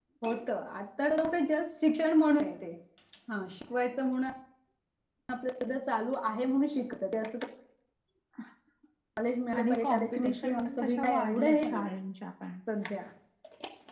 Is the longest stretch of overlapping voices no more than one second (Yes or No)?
No